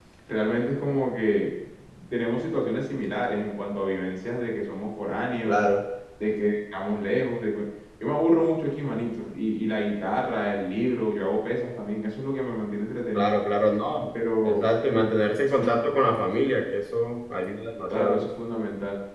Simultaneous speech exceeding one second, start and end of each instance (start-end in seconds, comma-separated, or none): none